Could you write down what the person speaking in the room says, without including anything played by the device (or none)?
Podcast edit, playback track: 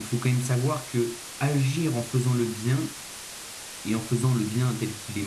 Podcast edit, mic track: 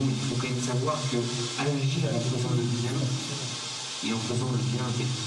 vers quelque chose qui n'existe pas forcément.